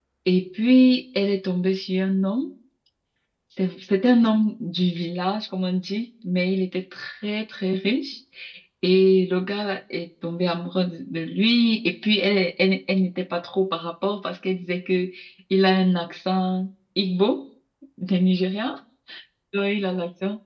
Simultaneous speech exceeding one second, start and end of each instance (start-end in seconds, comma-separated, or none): none